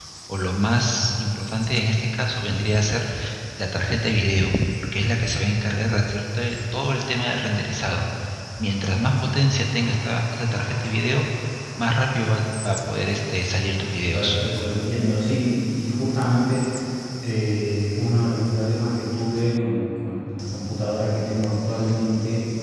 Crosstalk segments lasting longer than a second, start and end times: none

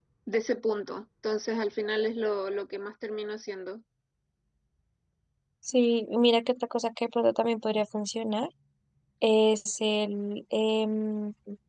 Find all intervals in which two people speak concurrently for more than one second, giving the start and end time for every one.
none

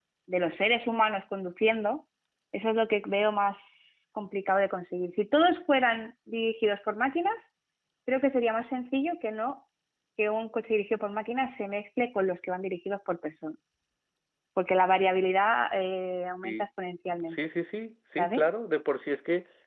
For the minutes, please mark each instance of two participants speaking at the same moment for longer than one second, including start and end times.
none

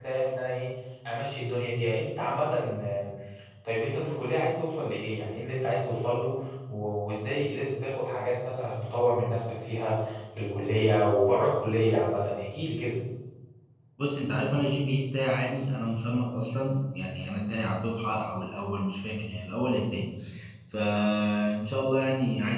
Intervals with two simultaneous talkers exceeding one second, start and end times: none

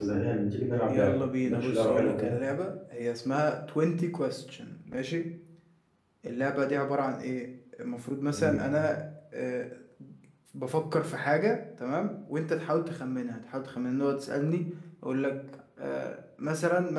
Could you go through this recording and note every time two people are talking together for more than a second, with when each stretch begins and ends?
0.9-2.4

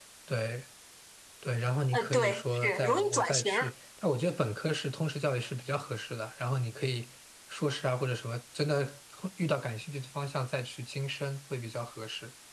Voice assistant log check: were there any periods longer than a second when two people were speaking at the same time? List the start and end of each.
1.9-3.7

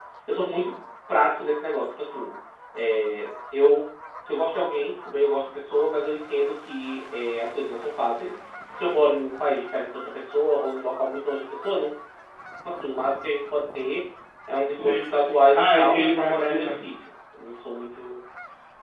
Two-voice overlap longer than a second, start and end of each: 14.8-16.8

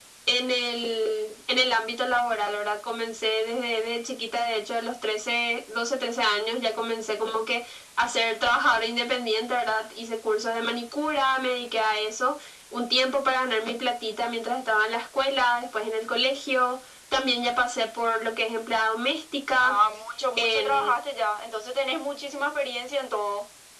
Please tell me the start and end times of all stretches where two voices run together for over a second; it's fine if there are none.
none

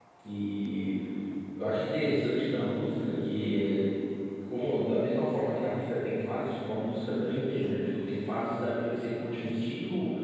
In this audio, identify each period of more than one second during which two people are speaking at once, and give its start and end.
none

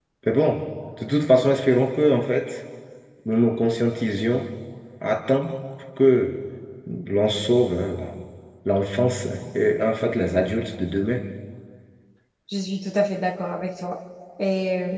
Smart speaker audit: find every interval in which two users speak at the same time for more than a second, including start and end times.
none

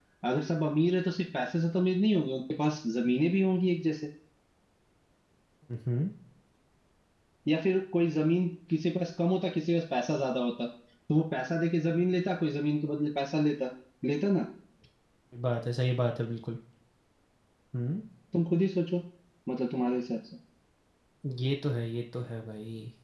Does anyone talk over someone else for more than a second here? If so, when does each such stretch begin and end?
none

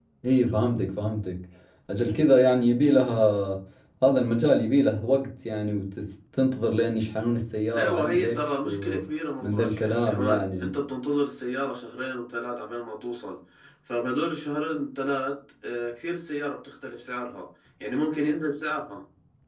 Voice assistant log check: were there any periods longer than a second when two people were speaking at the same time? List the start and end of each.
7.7-9.0, 9.4-10.7

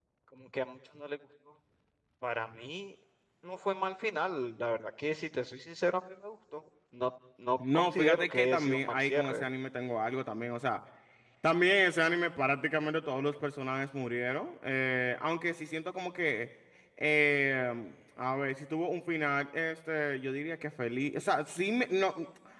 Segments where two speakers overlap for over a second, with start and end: 7.7-9.4

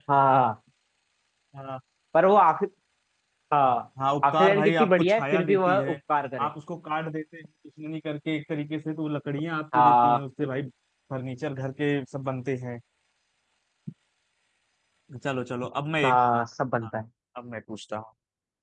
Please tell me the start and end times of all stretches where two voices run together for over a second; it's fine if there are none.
4.2-6.0

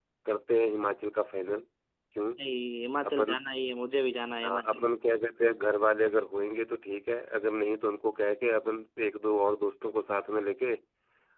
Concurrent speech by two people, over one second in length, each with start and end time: none

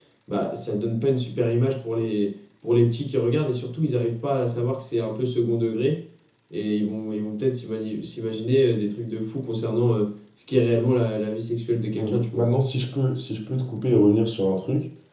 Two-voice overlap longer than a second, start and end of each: none

